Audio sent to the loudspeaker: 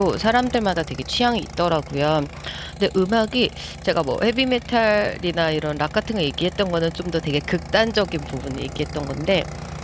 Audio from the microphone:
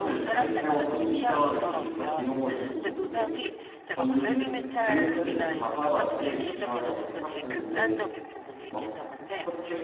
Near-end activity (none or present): present